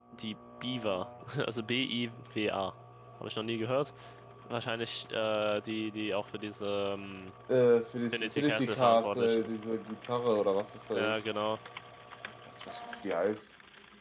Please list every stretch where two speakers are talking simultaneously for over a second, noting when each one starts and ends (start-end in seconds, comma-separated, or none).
8.1-9.5